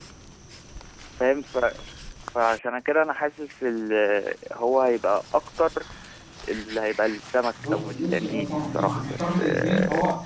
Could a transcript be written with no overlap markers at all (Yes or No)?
No